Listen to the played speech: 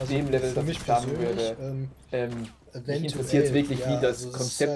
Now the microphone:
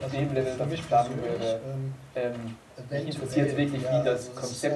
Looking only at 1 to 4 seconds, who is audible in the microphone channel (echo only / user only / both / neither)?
echo only